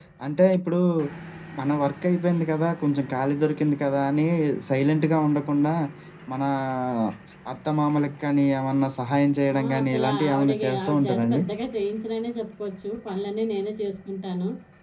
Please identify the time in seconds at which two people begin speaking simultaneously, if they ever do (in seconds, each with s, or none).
9.5 s